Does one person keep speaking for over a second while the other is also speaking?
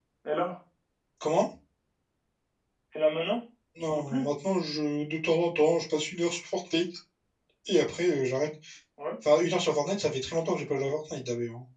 No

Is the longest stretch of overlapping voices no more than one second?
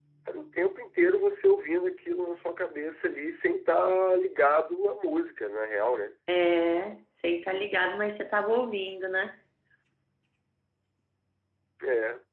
Yes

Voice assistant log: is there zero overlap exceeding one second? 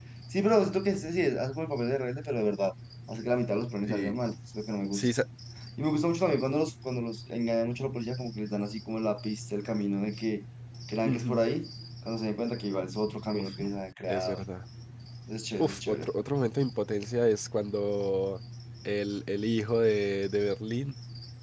Yes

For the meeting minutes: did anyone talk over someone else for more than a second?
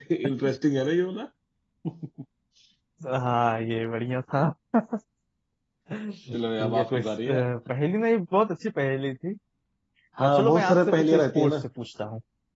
Yes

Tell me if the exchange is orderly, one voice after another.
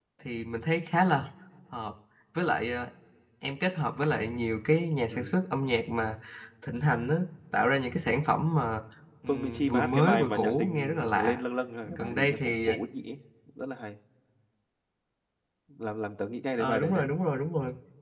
No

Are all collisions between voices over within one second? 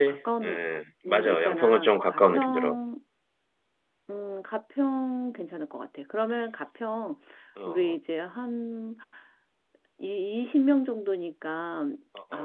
No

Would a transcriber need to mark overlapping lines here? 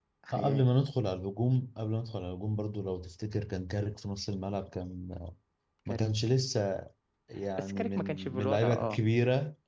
Yes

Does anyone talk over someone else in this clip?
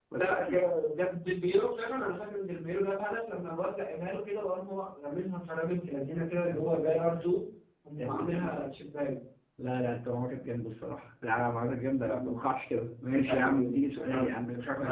Yes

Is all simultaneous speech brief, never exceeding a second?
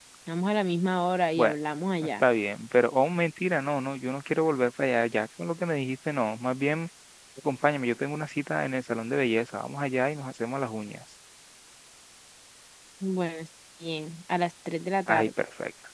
Yes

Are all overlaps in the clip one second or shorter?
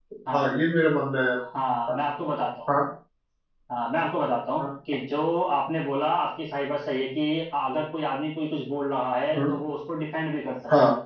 Yes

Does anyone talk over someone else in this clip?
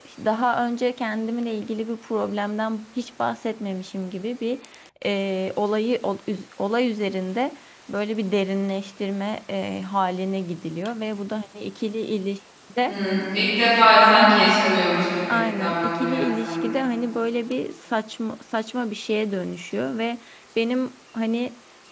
Yes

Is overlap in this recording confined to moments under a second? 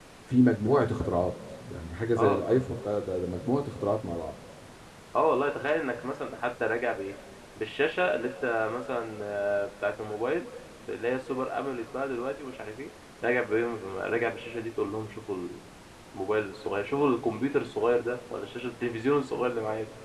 Yes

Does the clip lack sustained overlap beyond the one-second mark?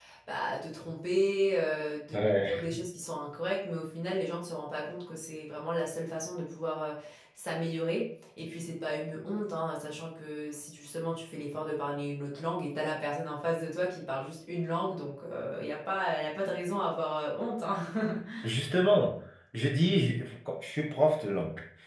Yes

